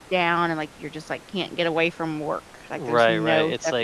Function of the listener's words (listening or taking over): taking over